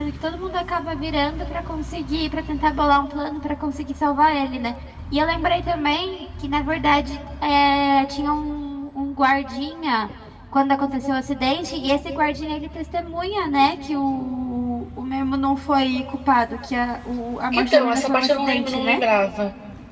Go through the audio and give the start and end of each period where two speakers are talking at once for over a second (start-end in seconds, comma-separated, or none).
17.5-19.0